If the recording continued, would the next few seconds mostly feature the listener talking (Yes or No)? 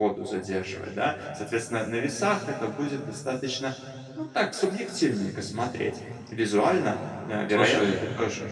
No